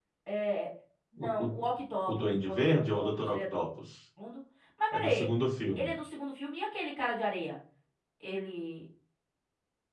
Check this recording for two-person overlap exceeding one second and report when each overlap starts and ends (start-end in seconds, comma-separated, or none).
2.1-3.5